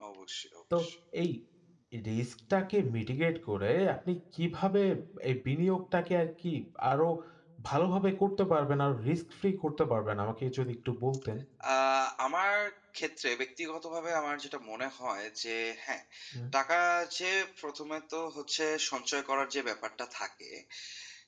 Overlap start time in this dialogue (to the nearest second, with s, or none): none